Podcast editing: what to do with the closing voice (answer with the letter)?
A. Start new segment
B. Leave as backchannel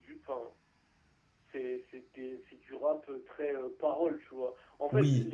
B